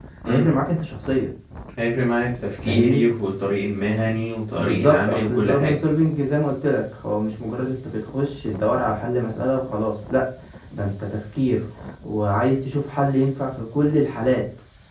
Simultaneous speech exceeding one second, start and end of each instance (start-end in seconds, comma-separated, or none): 4.6-5.8